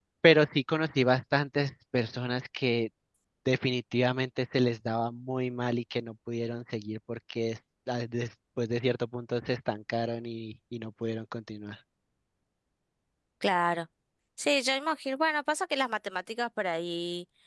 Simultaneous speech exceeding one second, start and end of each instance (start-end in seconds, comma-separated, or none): none